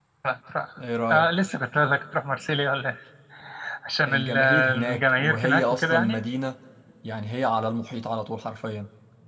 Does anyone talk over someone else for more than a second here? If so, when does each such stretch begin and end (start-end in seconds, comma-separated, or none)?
4.1-6.2